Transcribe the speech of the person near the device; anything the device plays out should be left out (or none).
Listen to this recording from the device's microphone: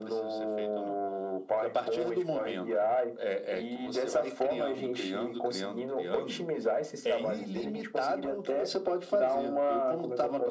none